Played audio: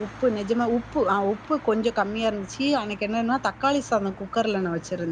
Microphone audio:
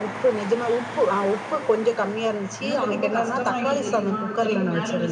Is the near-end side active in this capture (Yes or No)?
Yes